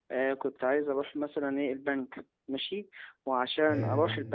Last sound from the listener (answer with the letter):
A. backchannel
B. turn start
A